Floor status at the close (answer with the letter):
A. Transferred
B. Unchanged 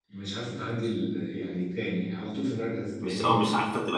A